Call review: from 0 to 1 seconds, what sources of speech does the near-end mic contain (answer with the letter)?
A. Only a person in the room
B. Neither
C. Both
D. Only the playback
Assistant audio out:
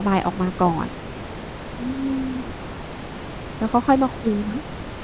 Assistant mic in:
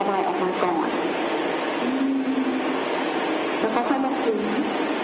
D